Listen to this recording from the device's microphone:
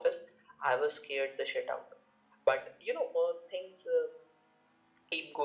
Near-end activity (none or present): none